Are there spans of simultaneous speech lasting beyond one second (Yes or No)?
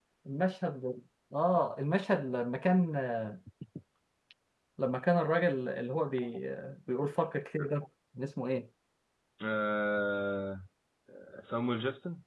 No